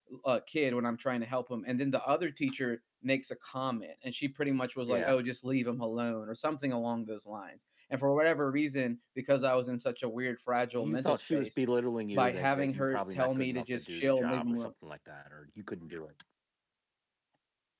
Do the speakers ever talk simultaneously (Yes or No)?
Yes